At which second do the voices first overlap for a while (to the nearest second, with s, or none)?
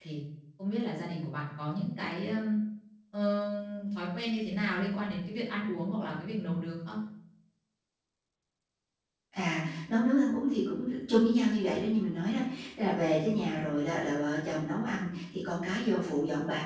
none